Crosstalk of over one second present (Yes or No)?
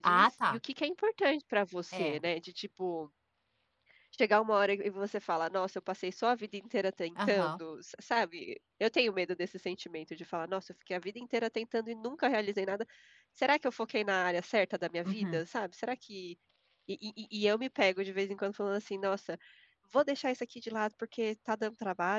No